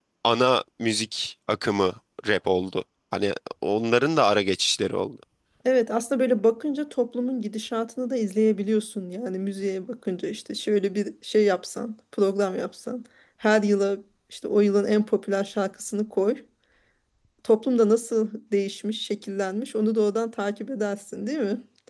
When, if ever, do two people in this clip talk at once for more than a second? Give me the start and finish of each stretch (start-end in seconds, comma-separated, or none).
none